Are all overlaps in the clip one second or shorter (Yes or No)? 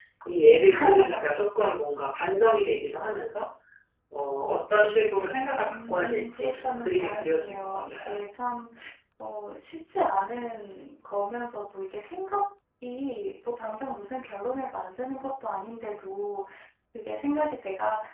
No